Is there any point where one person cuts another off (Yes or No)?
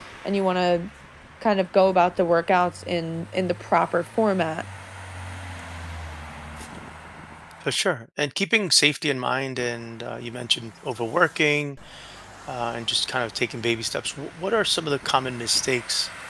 No